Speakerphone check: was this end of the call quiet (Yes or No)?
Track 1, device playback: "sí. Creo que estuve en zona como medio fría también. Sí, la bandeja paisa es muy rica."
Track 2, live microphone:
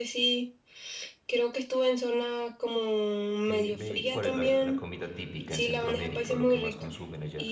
No